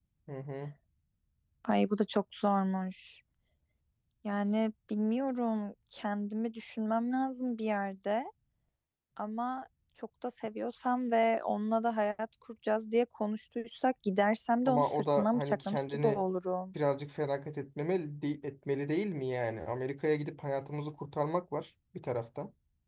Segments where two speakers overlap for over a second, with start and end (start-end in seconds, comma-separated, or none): 14.7-16.2